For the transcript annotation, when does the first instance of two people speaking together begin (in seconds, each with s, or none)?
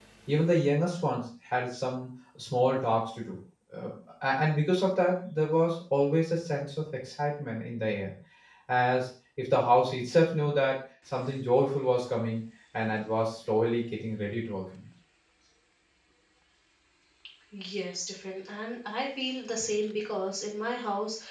none